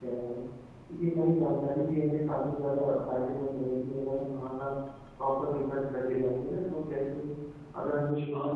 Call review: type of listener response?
taking over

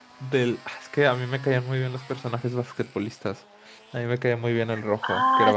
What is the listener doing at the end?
taking over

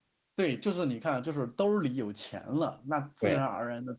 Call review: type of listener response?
listening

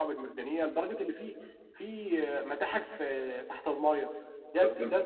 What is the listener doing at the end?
listening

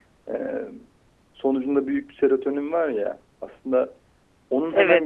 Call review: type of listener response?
listening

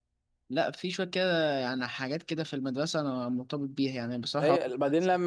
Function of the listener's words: taking over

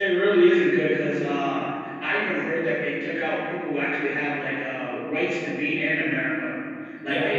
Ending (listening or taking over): listening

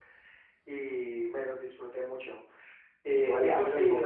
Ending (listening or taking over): taking over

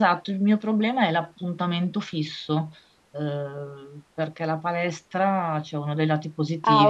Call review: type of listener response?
listening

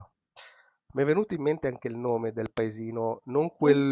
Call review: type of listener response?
listening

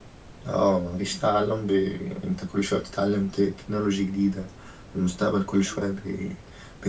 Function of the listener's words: listening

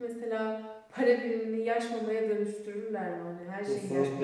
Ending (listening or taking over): taking over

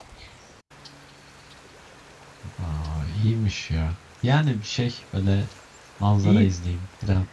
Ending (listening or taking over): listening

